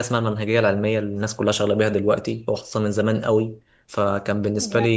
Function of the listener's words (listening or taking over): listening